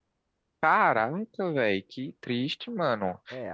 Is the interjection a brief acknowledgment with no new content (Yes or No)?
No